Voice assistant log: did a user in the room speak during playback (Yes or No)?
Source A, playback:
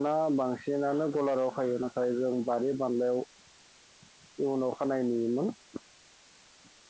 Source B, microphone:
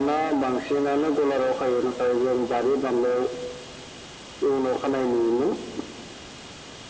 No